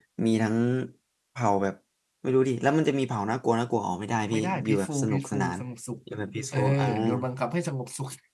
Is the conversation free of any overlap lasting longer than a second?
No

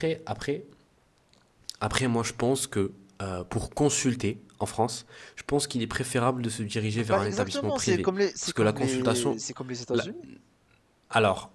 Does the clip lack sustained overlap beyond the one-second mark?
No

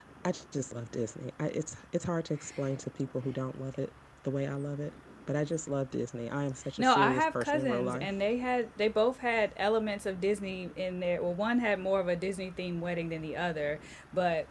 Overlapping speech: Yes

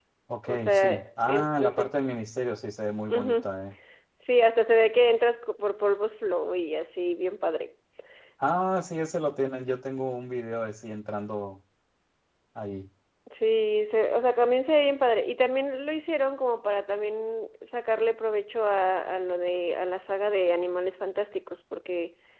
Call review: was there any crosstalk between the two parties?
Yes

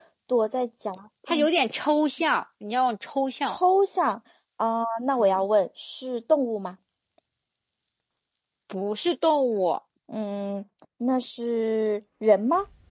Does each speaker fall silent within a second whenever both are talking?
Yes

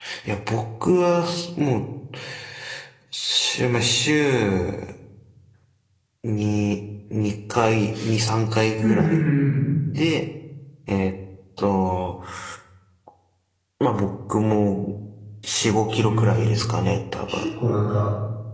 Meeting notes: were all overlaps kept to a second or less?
Yes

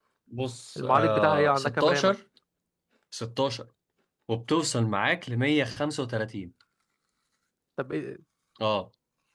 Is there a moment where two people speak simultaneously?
Yes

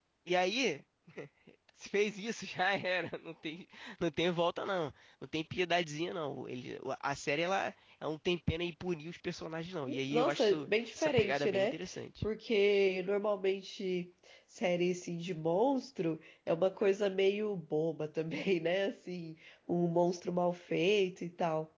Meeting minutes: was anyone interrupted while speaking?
Yes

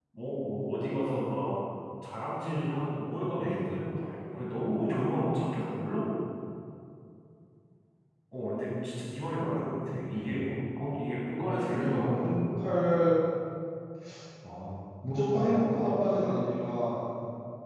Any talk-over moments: Yes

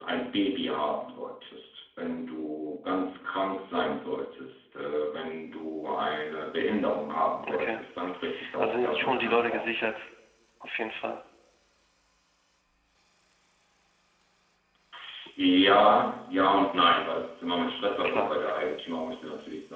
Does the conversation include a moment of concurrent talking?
Yes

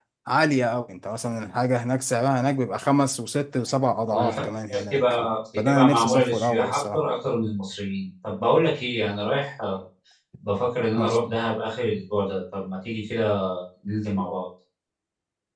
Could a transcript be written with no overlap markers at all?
No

